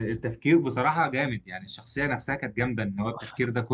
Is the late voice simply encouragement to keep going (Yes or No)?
Yes